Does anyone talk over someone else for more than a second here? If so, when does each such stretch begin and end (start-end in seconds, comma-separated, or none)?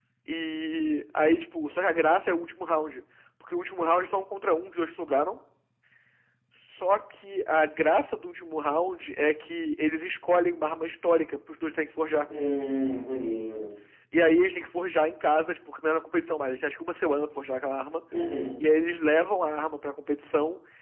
none